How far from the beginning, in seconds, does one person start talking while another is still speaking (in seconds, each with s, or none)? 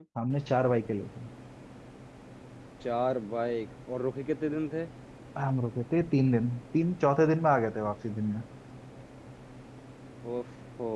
none